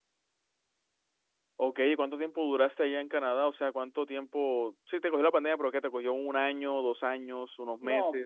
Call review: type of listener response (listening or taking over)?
taking over